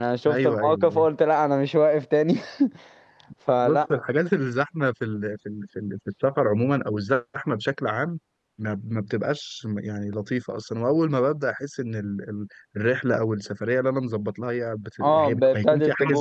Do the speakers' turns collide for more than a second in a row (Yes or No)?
Yes